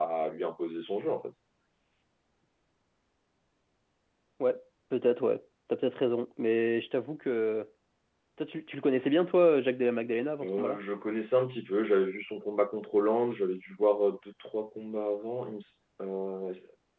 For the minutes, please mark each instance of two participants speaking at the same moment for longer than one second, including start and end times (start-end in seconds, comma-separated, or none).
none